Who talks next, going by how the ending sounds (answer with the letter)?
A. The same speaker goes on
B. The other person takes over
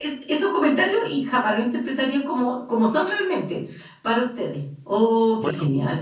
B